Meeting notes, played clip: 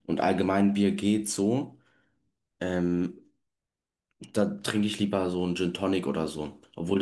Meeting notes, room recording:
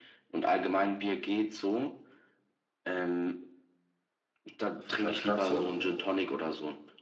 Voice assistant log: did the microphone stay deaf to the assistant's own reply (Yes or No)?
No